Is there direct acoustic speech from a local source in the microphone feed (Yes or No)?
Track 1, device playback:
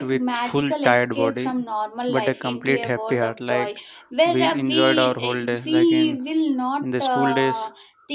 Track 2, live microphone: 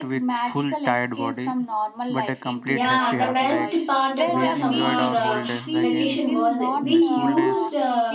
Yes